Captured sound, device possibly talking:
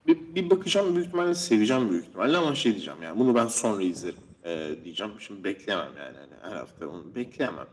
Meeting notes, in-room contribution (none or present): none